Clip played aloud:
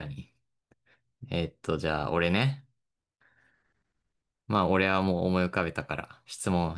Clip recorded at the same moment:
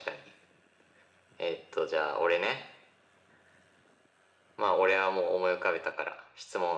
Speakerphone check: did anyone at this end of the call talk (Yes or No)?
No